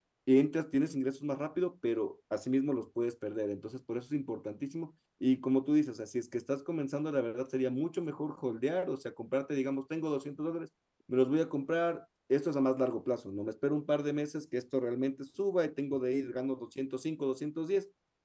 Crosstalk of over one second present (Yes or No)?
No